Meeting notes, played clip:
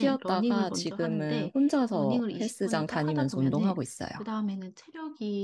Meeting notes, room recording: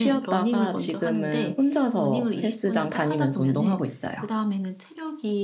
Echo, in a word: present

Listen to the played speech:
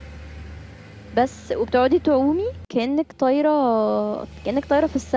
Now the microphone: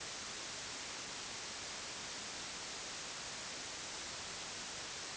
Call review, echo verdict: none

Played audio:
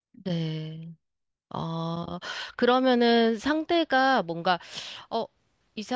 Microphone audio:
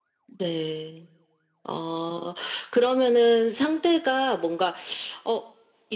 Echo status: present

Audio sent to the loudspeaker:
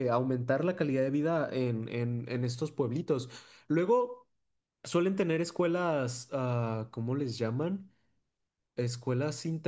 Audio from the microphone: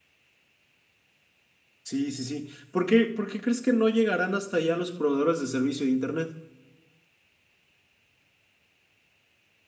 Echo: none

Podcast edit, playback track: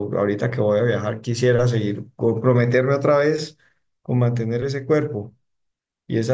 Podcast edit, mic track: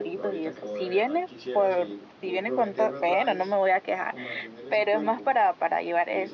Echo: present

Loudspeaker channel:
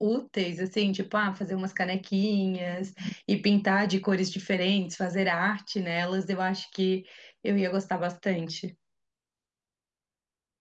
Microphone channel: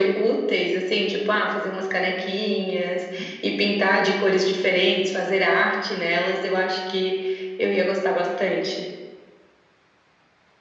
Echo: present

